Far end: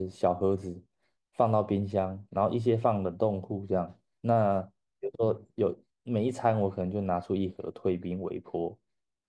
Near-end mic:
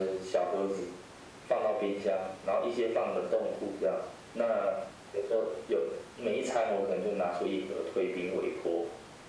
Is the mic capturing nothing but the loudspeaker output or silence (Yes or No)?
Yes